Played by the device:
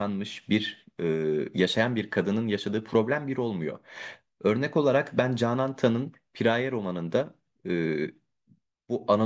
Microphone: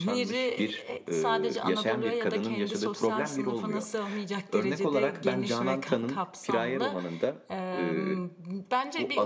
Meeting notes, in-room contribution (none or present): present